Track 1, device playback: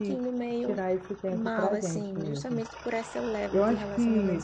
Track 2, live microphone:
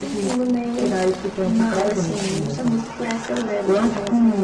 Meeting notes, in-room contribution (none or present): none